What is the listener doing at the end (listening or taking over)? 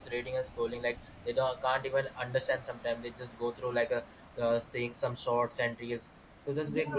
taking over